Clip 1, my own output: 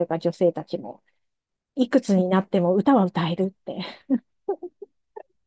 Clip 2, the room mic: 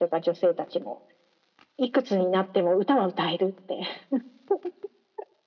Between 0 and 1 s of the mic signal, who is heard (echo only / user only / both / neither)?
echo only